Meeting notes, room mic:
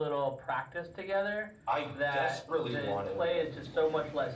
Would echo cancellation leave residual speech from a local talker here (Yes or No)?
No